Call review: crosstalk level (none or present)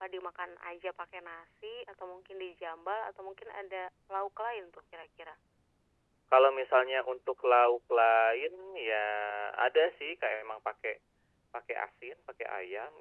none